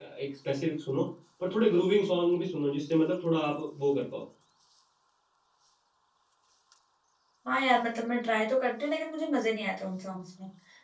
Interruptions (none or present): none